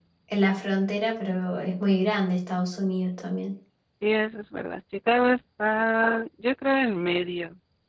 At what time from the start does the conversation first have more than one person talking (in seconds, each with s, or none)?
none